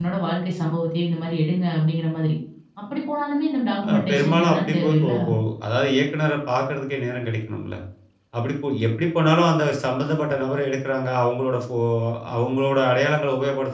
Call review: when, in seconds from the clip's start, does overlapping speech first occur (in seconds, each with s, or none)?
3.8 s